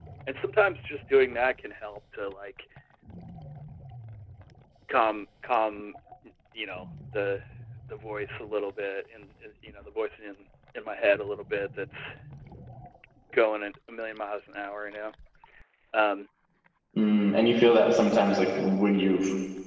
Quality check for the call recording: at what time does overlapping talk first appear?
none

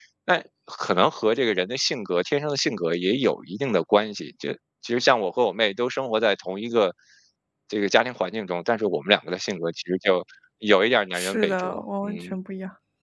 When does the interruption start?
11.1 s

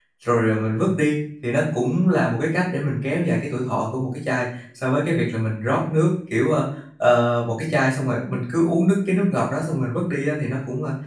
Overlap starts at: none

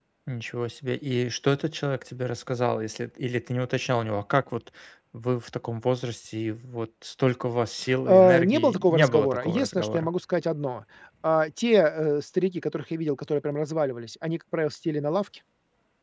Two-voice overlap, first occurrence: 8.1 s

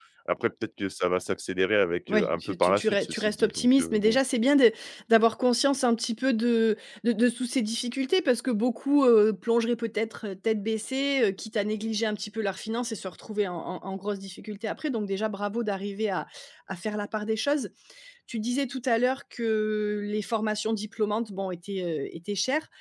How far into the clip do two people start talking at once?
2.1 s

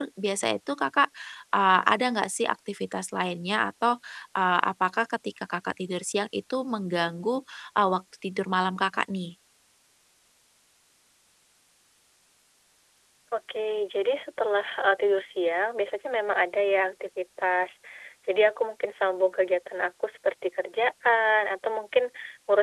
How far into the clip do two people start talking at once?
none

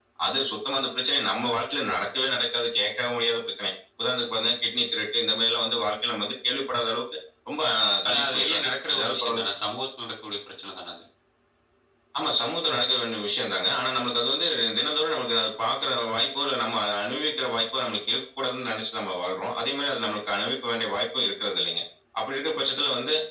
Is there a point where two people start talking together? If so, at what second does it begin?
8.1 s

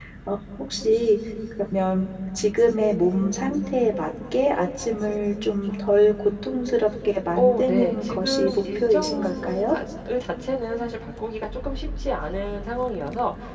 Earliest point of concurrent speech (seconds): 7.3 s

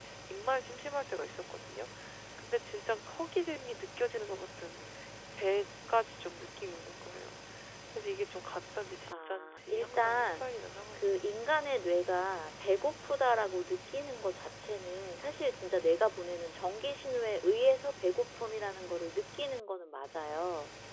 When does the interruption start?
9.1 s

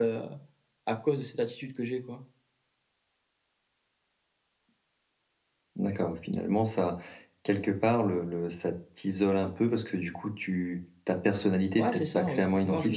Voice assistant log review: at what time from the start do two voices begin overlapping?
11.8 s

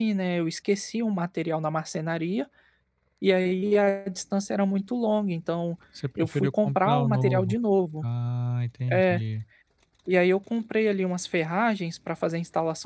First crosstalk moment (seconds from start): 6.2 s

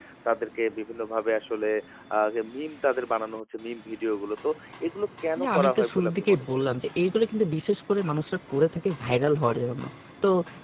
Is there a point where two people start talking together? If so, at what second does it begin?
5.4 s

